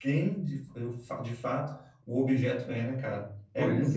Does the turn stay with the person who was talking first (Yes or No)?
No